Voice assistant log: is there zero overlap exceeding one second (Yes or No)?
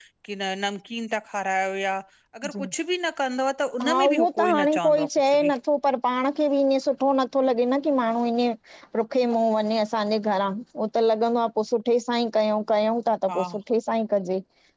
No